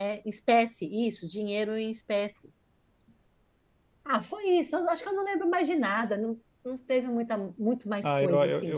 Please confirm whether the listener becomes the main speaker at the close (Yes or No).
Yes